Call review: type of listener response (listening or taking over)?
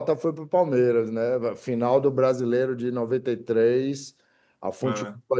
listening